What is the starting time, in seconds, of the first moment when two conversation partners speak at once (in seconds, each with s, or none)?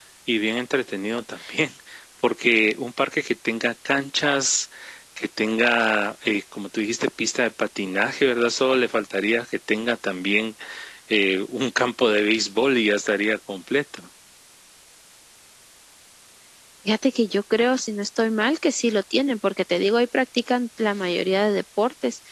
none